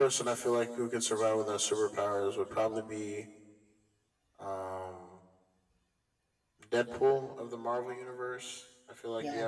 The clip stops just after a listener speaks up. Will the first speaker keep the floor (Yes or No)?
Yes